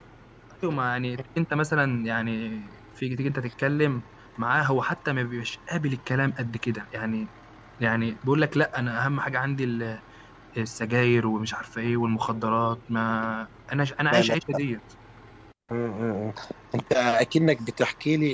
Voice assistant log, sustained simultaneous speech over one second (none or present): none